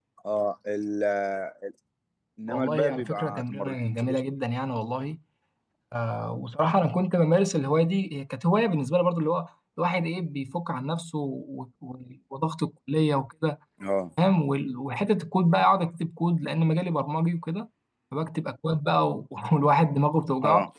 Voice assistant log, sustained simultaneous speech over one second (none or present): present